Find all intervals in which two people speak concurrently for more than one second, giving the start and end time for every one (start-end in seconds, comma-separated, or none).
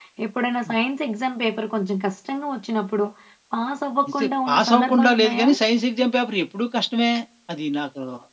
4.2-5.5